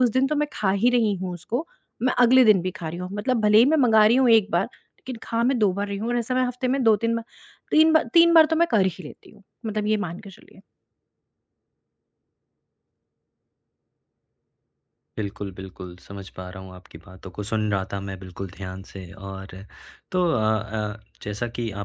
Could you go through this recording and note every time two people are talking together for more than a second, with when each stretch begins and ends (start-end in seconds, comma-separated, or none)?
none